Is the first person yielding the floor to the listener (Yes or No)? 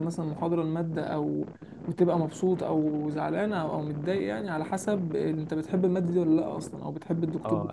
Yes